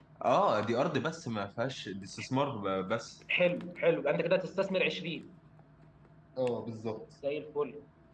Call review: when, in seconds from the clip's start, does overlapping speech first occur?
none

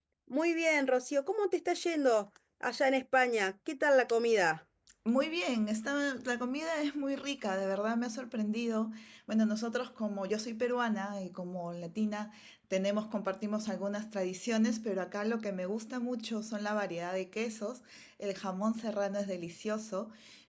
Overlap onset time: none

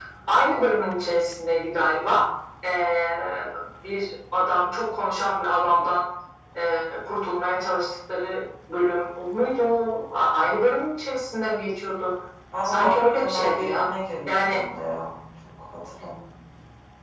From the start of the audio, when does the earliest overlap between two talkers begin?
12.6 s

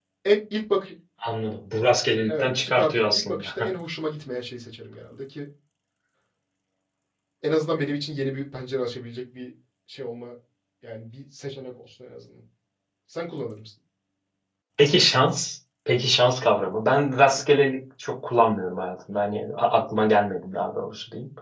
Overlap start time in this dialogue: 2.3 s

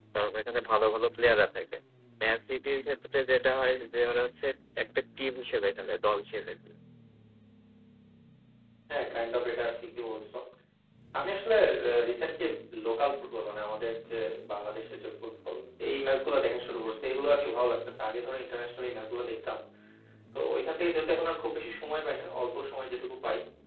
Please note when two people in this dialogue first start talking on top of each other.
none

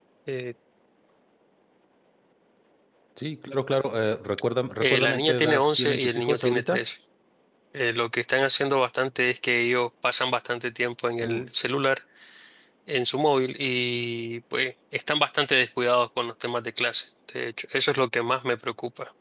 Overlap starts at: 4.8 s

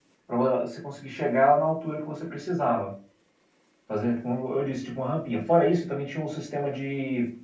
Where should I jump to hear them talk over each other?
none

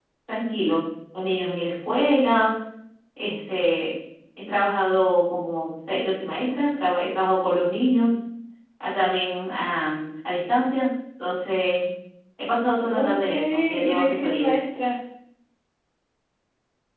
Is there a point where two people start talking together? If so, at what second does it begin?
12.9 s

